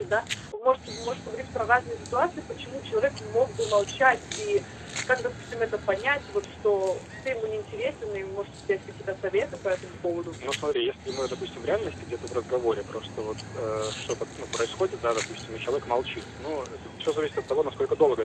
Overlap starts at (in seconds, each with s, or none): none